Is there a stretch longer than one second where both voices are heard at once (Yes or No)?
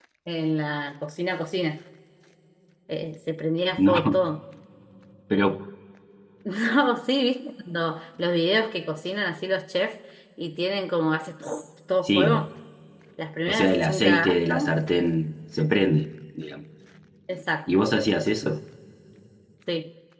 Yes